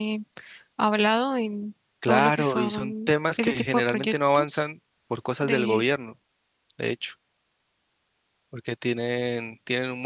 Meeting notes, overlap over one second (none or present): present